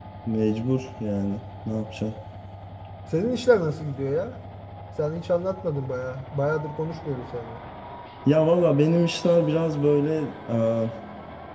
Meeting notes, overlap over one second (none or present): none